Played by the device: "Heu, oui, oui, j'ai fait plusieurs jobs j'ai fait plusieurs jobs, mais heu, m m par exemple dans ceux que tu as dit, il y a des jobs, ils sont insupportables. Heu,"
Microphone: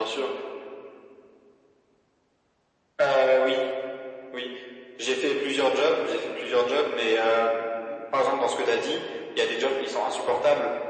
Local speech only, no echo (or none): none